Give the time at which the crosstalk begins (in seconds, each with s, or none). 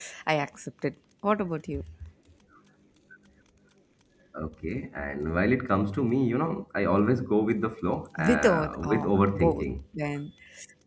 8.2 s